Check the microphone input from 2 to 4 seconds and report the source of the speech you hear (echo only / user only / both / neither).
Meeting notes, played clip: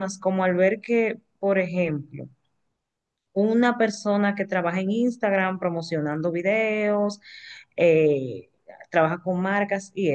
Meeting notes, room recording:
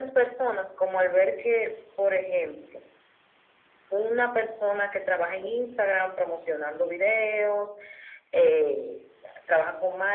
echo only